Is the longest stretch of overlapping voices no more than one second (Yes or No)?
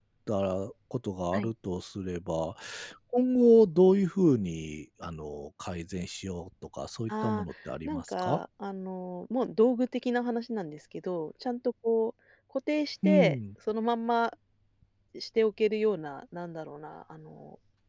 Yes